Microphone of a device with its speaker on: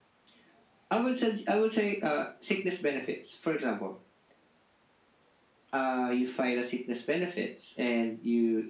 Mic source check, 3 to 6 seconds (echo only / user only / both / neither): echo only